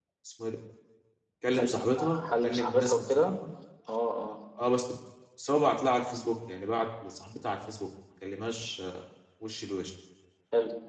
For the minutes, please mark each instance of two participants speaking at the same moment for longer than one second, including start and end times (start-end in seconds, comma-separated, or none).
1.5-3.3